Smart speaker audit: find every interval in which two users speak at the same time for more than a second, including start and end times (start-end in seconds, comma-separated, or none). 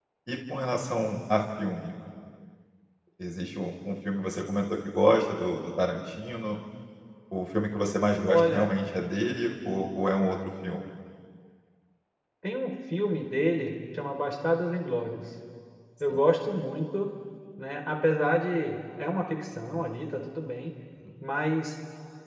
none